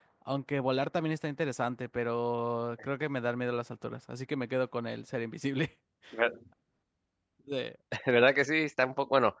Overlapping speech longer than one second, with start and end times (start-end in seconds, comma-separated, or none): none